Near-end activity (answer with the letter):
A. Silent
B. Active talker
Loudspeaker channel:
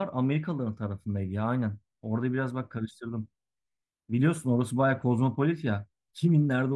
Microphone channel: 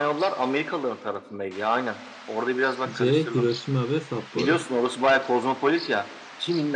B